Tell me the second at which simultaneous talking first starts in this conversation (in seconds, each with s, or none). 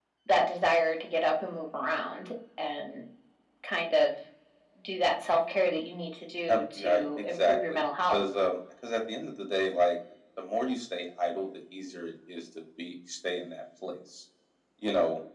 6.5 s